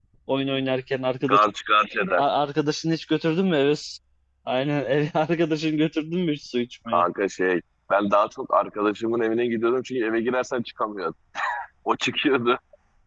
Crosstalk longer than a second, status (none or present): none